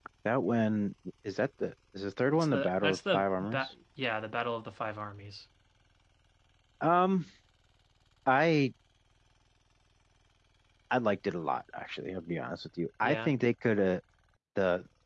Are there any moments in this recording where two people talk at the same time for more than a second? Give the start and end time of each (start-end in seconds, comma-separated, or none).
2.3-3.7